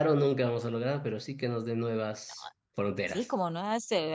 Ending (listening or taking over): taking over